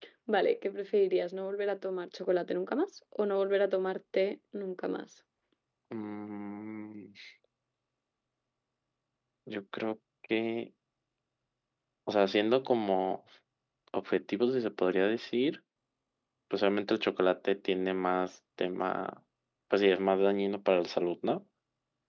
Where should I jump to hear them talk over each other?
none

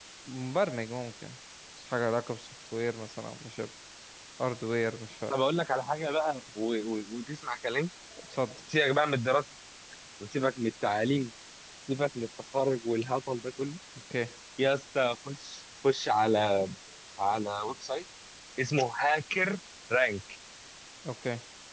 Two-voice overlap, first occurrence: none

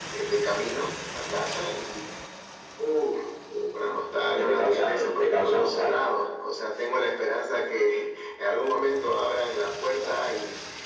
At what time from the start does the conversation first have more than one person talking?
4 s

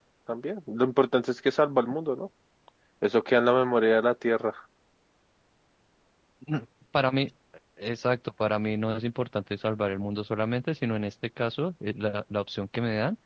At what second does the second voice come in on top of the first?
none

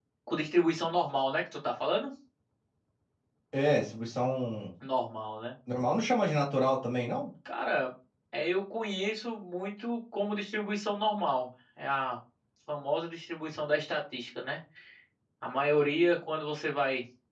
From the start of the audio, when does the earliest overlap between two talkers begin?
none

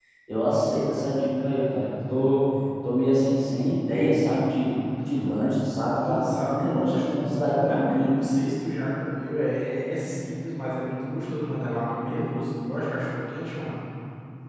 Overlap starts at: 6 s

